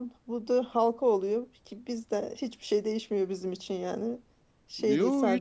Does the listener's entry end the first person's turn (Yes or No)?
Yes